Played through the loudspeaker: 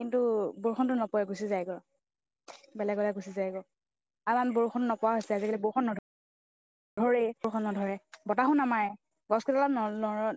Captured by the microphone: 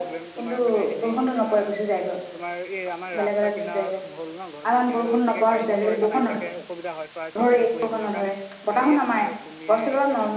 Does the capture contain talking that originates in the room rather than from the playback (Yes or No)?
Yes